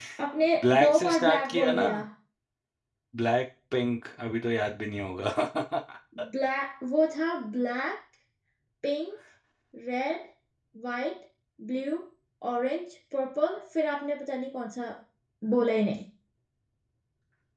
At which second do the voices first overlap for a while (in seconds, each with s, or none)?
0.6 s